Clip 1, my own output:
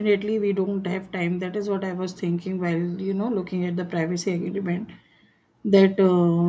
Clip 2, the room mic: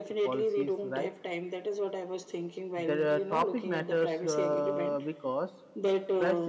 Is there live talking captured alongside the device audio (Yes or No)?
Yes